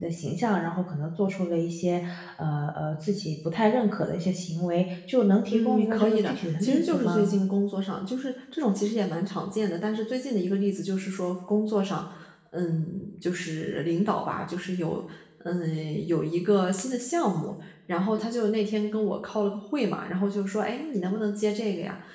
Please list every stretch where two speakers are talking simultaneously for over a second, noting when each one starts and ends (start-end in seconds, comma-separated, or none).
5.5-7.4